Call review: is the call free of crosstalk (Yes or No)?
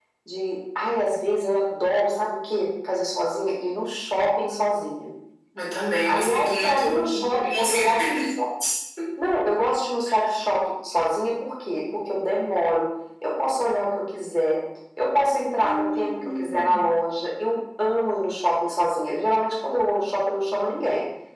No